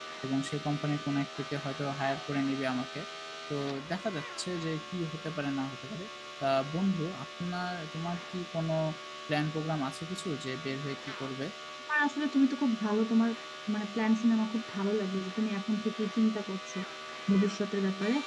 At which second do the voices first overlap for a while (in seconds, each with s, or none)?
none